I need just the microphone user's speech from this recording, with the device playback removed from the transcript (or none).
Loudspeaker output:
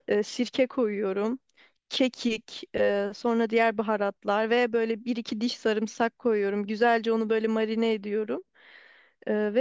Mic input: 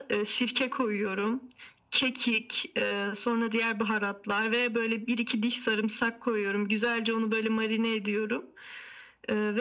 none